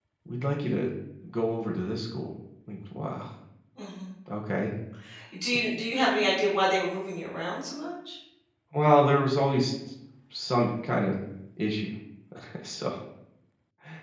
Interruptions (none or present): none